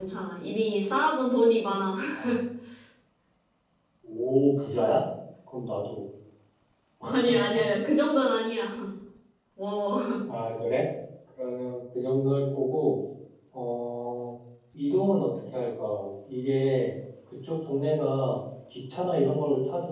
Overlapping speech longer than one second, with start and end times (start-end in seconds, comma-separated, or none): none